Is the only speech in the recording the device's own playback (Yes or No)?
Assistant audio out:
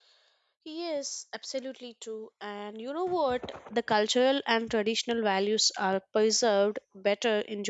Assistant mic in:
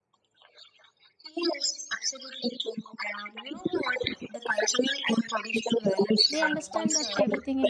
No